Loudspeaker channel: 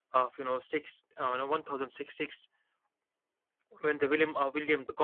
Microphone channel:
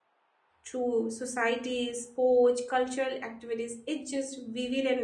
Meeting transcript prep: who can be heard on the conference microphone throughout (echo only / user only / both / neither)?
user only